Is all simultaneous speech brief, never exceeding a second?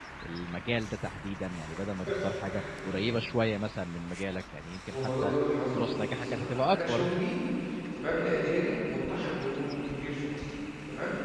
No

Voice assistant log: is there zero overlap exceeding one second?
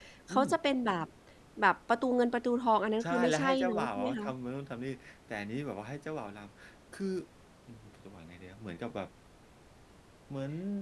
No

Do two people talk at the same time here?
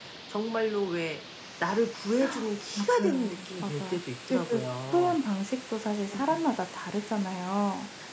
Yes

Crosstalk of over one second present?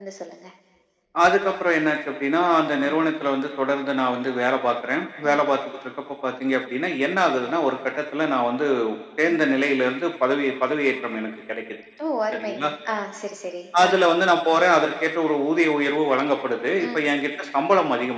No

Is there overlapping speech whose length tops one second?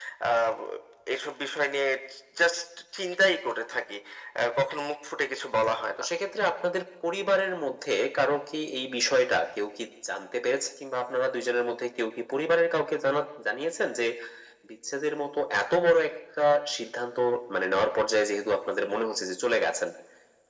No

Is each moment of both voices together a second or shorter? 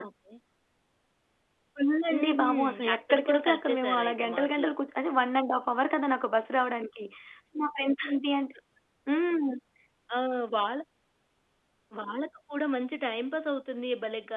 No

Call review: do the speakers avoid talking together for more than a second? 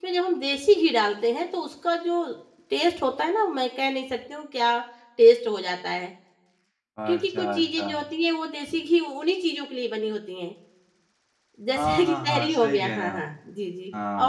No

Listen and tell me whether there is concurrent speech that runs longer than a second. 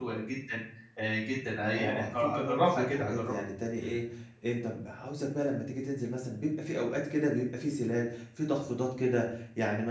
Yes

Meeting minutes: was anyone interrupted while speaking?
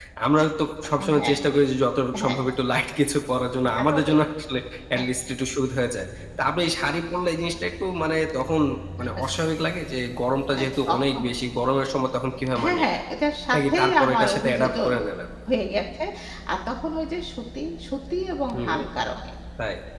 Yes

